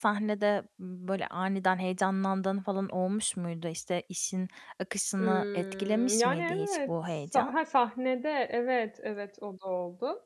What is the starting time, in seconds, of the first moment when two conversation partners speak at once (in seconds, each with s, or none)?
5.2 s